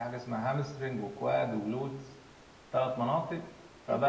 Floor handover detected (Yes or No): Yes